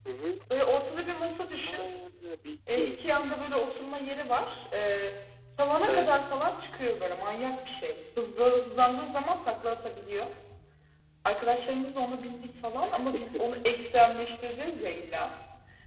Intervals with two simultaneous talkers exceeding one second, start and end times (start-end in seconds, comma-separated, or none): none